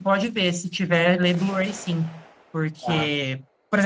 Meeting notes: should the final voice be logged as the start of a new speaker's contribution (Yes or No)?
No